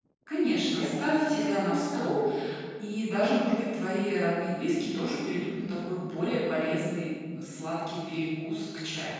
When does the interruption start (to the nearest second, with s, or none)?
1 s